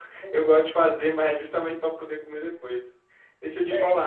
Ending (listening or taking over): listening